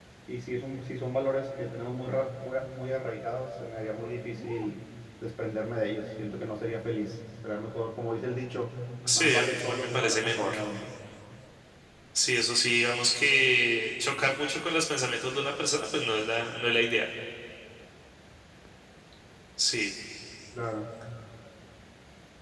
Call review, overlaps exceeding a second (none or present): present